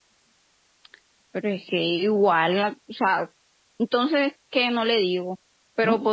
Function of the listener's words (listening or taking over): listening